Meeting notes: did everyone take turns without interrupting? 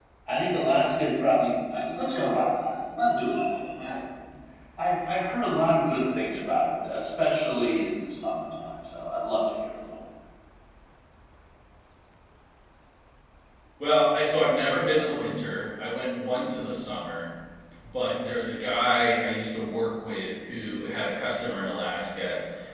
Yes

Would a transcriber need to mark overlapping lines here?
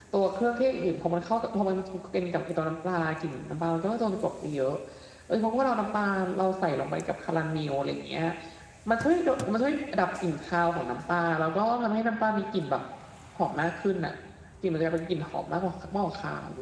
No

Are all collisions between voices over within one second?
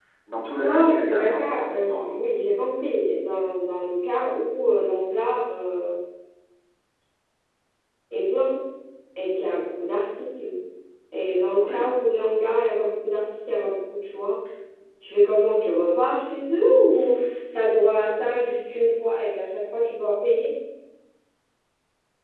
No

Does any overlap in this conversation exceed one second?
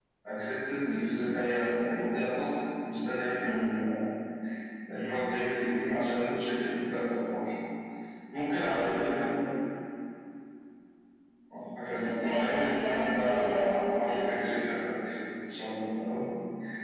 Yes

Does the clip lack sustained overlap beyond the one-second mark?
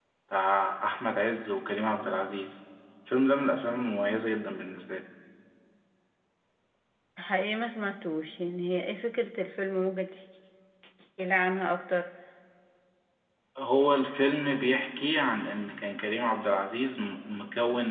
Yes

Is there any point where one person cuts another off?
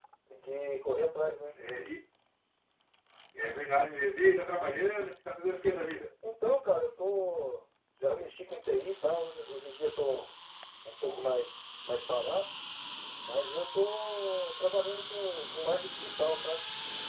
No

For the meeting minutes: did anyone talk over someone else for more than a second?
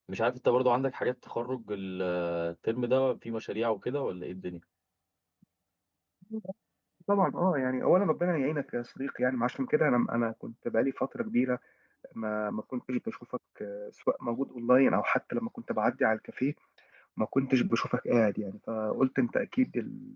No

